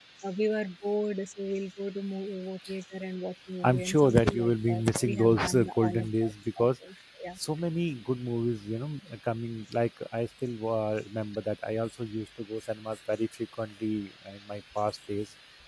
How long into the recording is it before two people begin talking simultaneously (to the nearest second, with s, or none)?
4 s